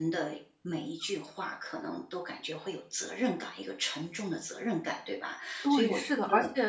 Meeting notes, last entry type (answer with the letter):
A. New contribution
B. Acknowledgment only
A